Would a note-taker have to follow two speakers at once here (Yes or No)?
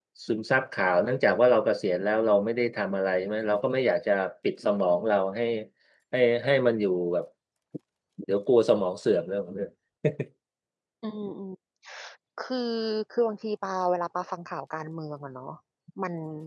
No